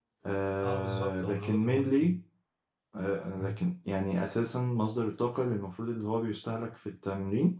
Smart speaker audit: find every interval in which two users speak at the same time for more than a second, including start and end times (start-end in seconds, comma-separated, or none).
0.6-2.2